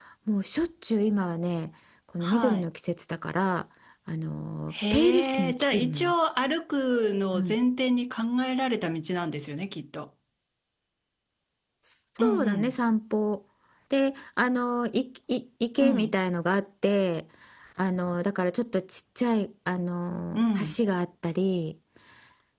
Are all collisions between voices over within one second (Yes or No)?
No